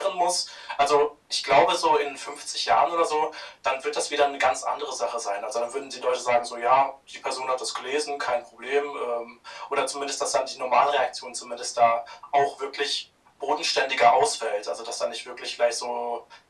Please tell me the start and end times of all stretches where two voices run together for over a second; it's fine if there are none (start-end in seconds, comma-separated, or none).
none